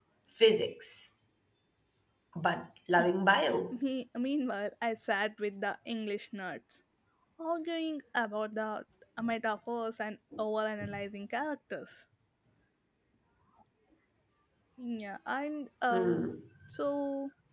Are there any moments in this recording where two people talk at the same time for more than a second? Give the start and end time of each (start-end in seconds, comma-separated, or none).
none